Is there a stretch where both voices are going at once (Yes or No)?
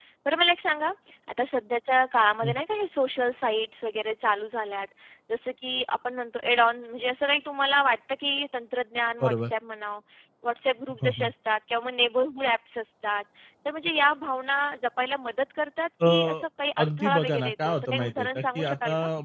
Yes